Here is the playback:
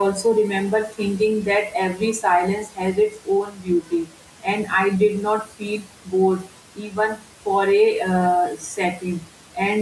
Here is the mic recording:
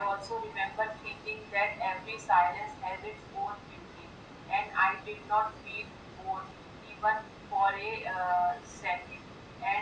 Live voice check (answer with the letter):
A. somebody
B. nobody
B